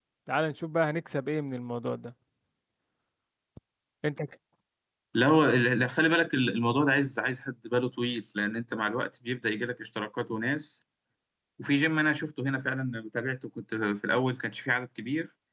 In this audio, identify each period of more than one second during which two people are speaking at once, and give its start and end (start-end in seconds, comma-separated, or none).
none